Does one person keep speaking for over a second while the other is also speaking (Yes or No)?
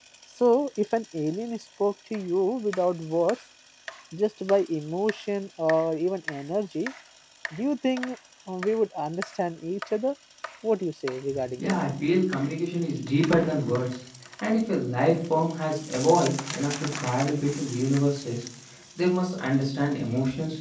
No